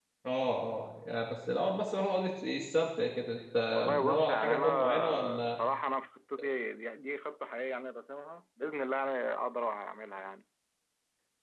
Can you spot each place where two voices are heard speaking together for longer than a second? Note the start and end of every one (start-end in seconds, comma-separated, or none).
3.7-5.5